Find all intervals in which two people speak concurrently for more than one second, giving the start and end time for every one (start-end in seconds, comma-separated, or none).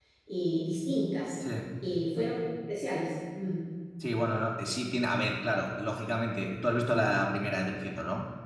none